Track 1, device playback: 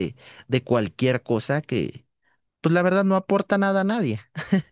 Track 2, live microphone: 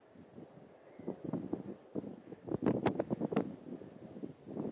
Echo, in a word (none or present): none